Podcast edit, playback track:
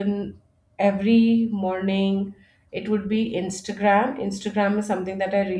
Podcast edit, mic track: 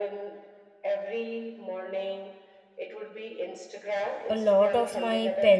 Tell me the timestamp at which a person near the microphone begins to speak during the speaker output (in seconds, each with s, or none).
4.3 s